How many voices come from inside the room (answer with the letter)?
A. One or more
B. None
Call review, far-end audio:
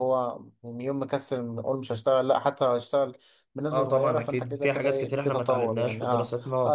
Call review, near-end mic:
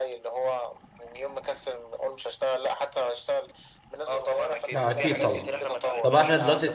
A